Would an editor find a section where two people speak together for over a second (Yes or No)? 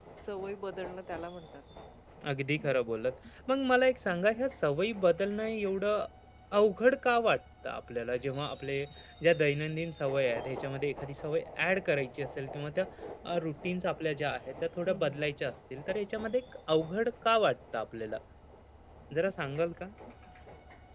No